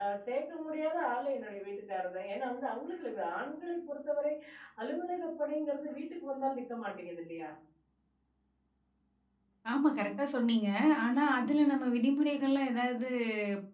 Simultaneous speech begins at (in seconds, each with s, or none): none